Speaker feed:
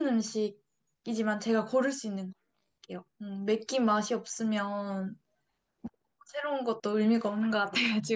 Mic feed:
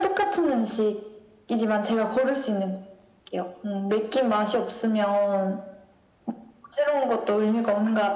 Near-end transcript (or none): none